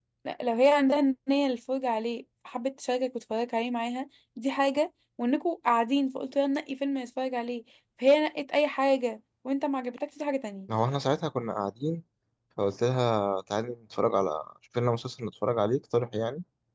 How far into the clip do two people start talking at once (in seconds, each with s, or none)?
none